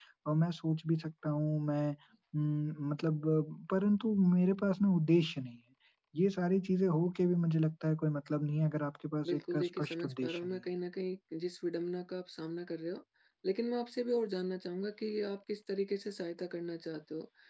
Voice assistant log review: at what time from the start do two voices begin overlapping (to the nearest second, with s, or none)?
9 s